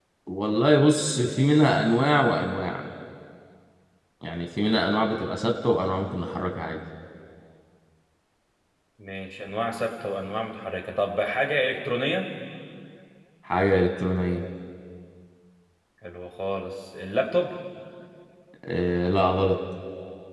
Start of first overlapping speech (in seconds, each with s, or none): none